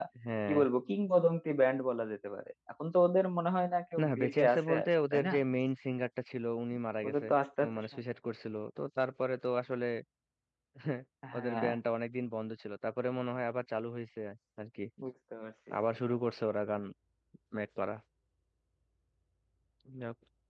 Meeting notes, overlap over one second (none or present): present